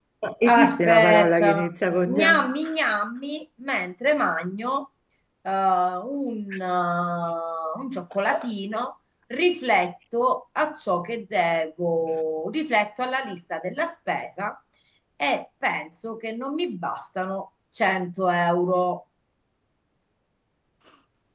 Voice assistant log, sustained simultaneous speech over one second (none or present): present